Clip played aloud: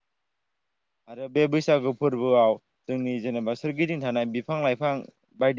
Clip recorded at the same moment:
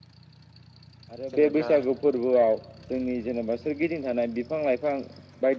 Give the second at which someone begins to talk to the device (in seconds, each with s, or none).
1.3 s